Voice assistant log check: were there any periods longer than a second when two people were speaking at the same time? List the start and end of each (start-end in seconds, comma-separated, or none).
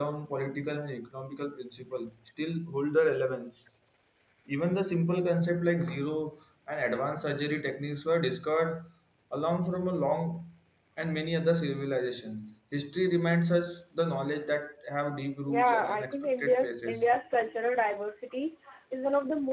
15.5-17.1